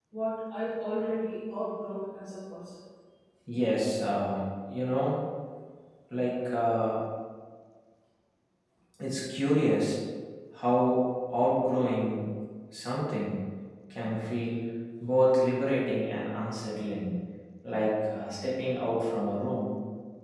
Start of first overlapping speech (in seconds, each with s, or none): none